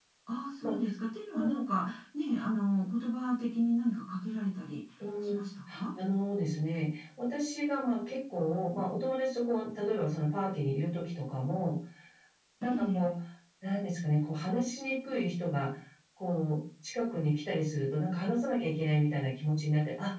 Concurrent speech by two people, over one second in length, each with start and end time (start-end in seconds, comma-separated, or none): none